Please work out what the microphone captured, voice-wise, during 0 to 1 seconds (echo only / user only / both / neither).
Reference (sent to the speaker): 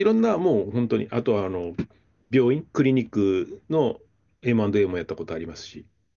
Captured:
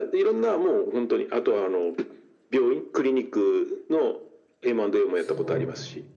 echo only